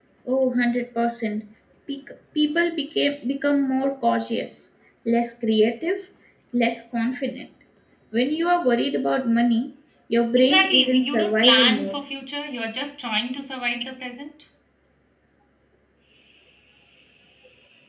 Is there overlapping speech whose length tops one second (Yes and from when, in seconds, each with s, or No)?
Yes, from 10.4 s